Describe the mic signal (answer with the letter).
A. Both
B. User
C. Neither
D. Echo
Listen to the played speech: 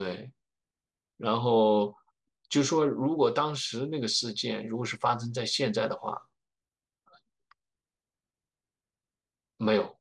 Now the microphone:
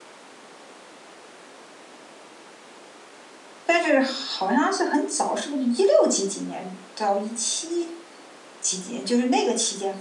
B